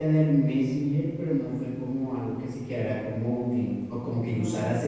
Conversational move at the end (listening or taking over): listening